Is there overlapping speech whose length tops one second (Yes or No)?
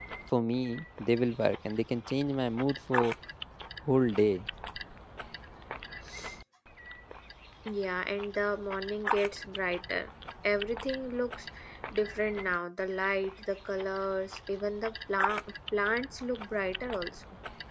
No